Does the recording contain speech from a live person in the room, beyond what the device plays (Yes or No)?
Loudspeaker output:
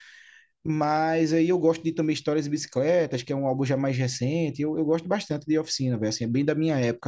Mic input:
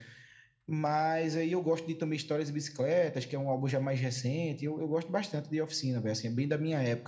No